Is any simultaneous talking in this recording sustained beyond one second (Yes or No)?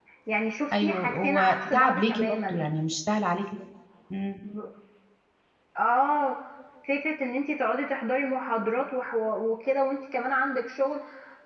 Yes